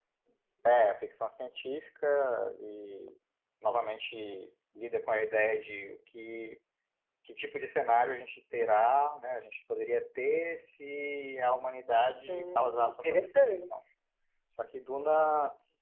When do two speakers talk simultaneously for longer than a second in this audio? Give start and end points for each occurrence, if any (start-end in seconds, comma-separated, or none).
12.3-13.8